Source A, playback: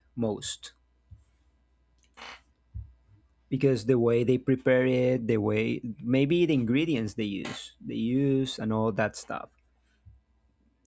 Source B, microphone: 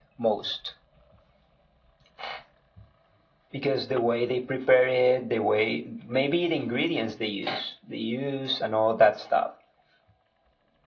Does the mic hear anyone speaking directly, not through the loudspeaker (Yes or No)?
No